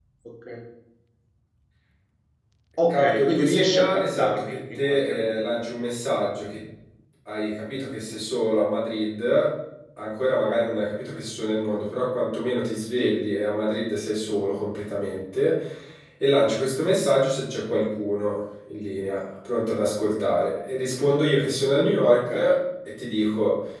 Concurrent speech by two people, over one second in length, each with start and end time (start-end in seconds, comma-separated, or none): 2.9-5.5